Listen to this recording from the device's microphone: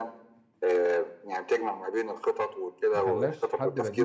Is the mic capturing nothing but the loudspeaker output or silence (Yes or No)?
No